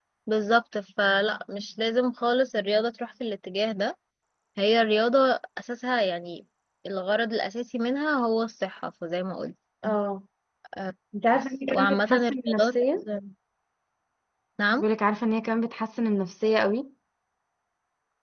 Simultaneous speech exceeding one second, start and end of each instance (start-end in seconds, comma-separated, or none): 11.3-12.8